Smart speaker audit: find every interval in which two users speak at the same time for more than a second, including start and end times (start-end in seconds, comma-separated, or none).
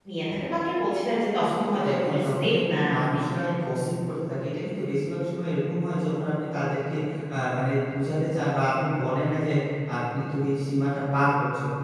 1.4-3.2